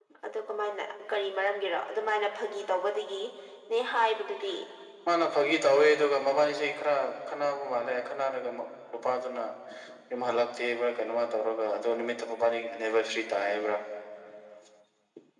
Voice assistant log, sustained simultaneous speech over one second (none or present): none